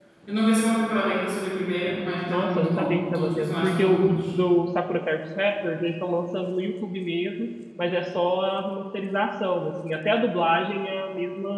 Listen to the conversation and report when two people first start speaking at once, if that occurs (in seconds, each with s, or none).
2.3 s